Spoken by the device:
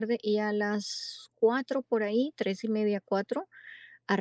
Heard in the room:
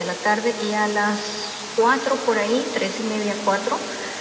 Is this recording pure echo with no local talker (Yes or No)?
Yes